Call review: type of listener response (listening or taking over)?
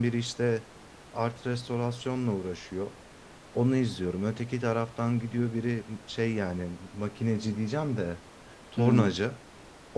listening